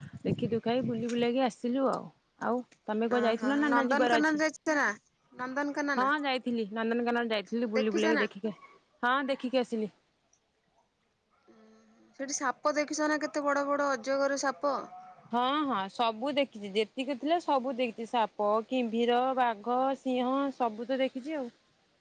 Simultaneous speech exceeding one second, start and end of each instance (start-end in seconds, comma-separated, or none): 3.2-4.4